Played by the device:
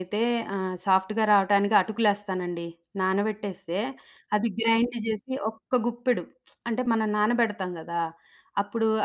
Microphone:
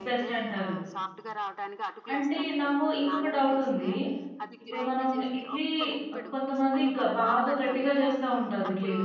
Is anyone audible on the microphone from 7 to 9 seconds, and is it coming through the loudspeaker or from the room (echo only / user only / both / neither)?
both